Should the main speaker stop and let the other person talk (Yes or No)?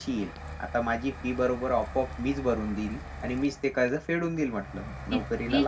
Yes